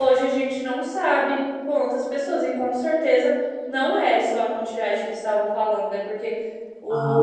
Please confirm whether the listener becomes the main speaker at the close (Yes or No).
No